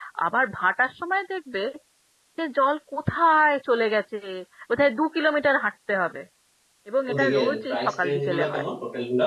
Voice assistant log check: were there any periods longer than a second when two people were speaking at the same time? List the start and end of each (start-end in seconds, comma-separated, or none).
7.1-8.6